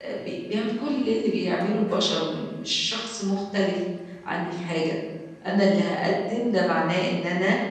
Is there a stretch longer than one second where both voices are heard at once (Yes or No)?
No